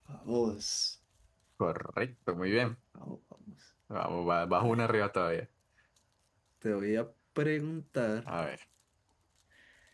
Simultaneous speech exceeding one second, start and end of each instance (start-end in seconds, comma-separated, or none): none